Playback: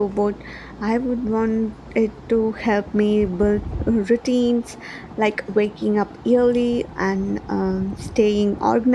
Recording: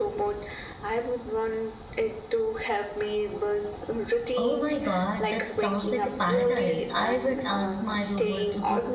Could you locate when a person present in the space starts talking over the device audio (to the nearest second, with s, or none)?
4 s